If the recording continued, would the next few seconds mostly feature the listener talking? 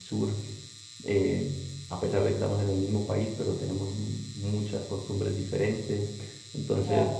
No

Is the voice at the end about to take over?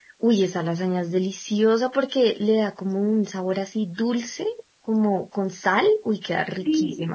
Yes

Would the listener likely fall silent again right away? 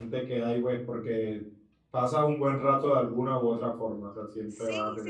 No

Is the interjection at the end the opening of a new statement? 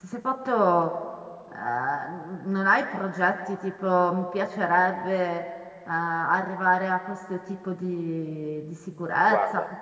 No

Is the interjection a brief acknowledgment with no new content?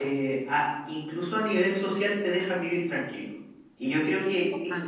Yes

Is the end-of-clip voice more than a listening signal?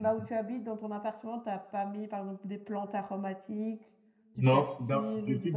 Yes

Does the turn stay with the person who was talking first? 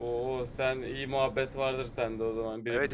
No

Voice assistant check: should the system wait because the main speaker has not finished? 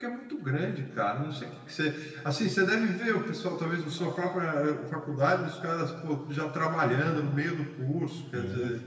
No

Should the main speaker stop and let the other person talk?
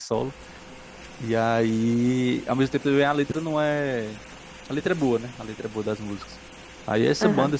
No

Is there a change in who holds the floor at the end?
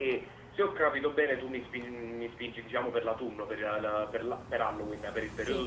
Yes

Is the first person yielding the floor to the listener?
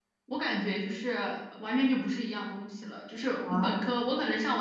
No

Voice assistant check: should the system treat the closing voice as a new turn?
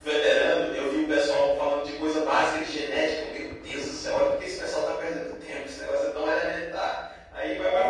Yes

